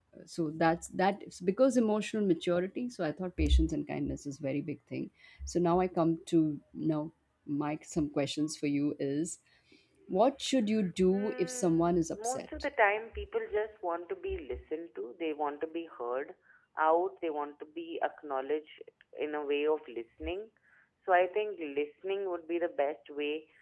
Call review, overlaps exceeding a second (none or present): present